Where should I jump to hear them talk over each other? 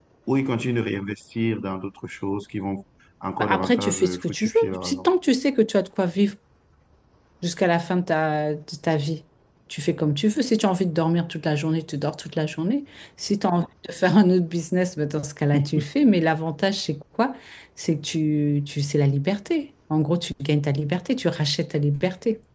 3.4 s

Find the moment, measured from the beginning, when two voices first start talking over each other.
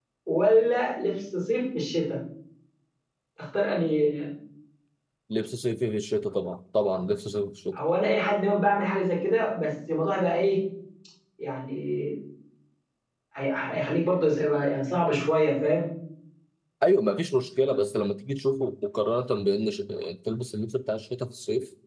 none

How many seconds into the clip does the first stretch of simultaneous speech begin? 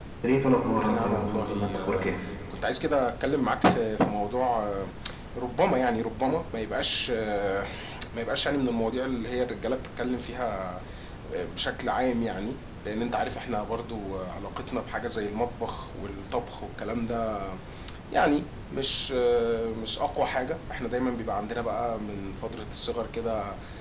0.8 s

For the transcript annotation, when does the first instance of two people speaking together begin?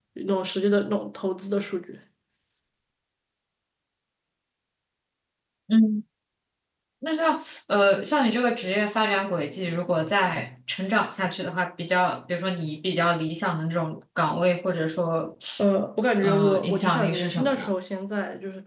16.2 s

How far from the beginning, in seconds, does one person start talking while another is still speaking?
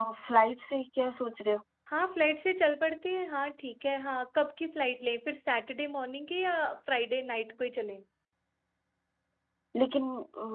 none

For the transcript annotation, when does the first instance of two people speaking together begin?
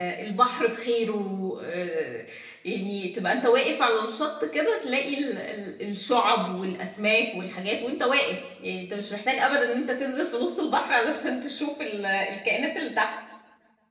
none

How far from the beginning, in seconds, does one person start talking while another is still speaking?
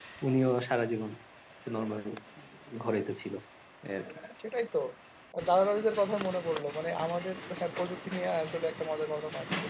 none

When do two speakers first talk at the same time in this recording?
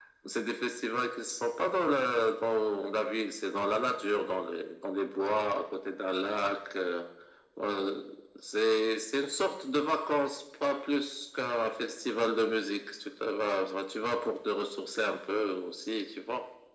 none

